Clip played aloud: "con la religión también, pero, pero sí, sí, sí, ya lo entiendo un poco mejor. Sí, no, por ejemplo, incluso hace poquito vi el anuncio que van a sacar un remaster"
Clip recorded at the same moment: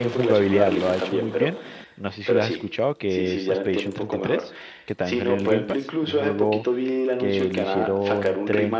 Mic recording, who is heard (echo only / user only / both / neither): both